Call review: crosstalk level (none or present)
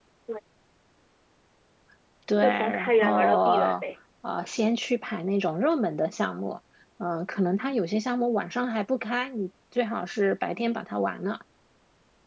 present